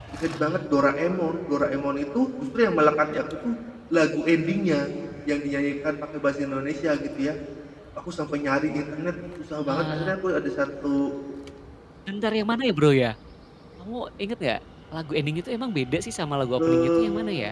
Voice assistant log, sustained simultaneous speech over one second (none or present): none